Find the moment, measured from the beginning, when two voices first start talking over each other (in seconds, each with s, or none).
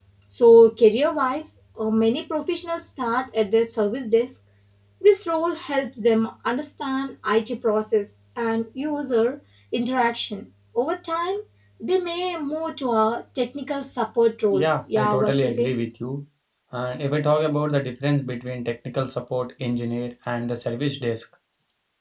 14.5 s